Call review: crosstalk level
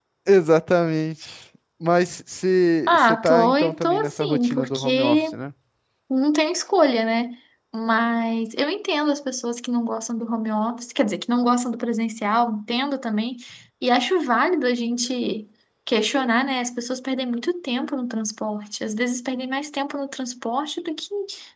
present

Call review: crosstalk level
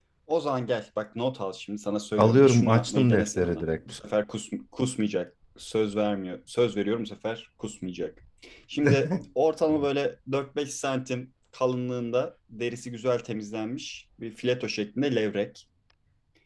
present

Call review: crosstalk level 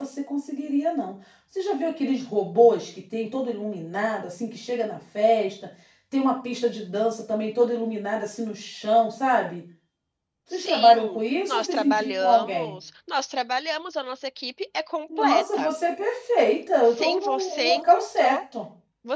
present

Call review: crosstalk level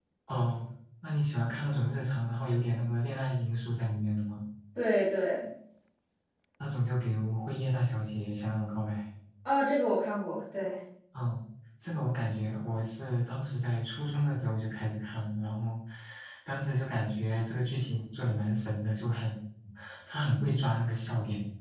none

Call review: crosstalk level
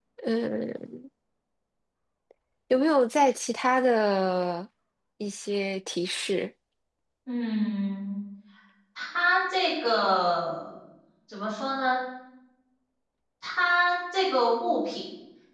none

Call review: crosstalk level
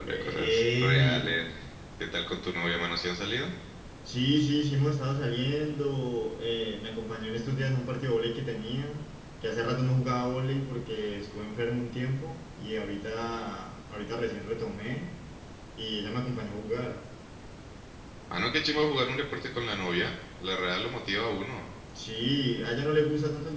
present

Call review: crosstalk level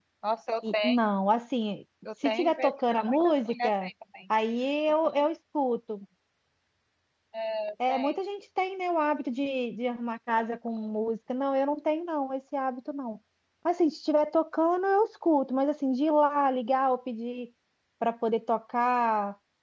present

